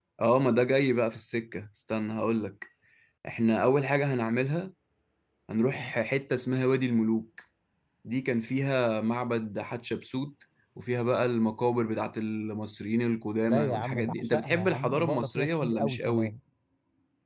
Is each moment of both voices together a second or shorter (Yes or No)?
No